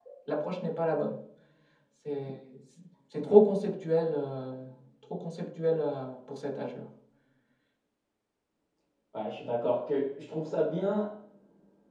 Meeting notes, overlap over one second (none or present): none